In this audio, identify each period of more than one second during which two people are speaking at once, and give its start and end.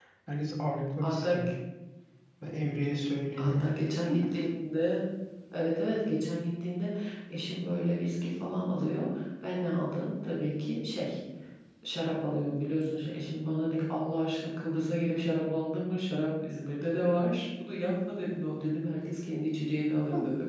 none

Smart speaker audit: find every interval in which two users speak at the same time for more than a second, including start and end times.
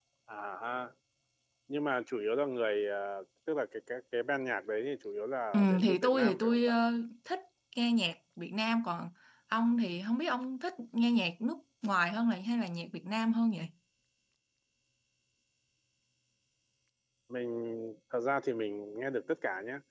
5.5-6.8

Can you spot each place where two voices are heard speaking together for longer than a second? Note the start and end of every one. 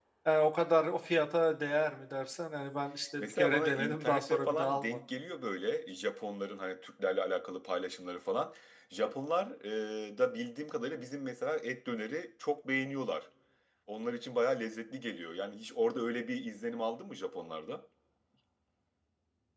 3.2-5.0

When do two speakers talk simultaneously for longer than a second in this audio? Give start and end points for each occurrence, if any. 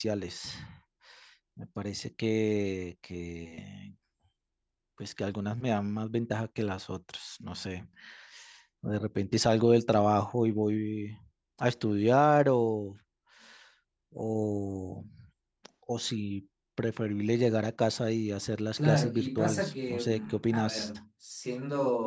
18.8-20.9

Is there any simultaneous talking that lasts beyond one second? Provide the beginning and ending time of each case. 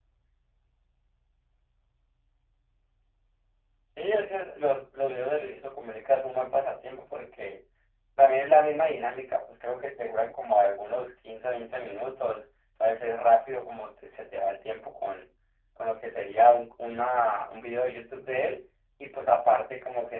none

